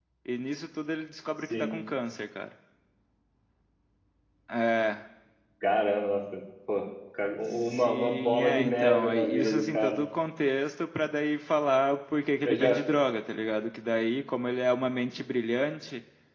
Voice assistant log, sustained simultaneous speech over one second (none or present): present